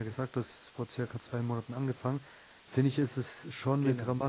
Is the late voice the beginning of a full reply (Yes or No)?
No